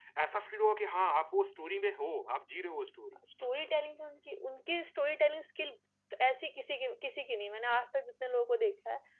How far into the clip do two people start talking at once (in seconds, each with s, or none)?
none